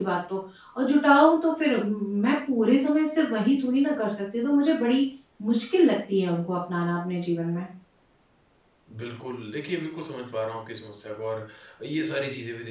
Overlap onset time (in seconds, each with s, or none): none